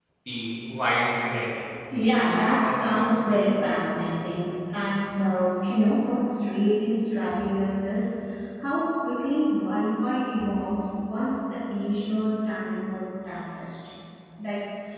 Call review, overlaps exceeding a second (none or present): present